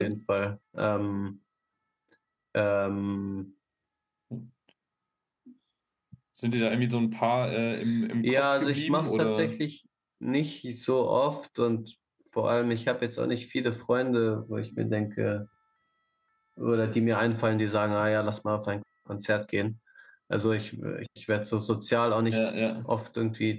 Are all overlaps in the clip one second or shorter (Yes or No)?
No